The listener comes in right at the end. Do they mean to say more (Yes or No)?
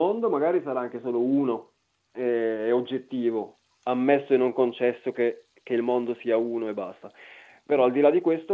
No